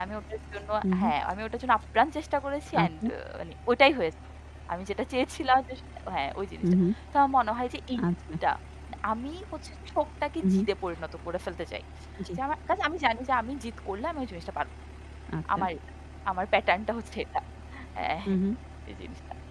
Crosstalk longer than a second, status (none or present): none